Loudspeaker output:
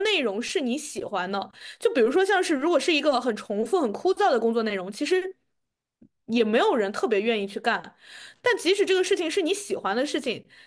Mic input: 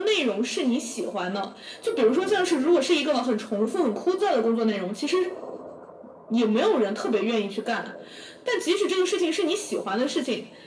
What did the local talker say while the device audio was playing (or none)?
none